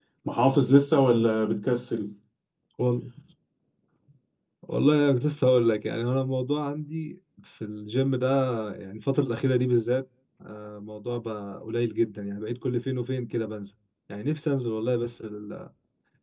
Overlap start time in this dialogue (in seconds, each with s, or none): none